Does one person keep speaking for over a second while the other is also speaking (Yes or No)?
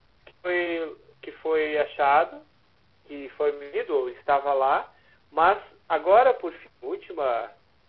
No